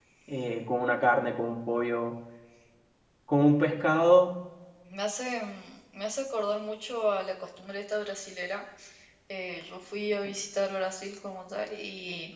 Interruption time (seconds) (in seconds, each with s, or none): none